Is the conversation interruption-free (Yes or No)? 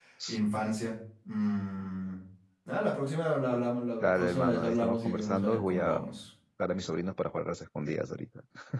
No